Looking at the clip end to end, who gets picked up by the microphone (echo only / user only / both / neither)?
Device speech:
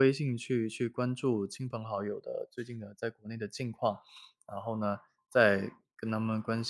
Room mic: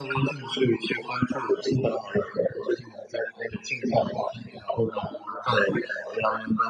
echo only